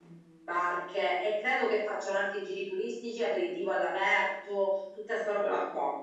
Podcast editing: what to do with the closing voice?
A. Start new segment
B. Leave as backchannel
B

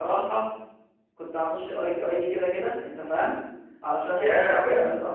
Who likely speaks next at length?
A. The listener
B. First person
B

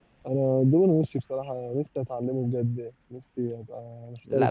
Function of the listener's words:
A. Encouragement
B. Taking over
B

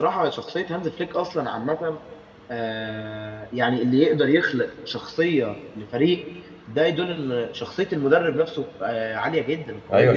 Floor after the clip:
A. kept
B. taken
B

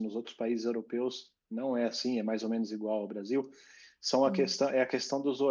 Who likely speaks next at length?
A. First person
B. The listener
A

